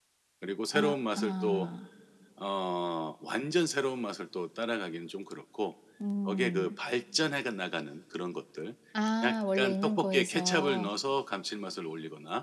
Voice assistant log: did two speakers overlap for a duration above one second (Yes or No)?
Yes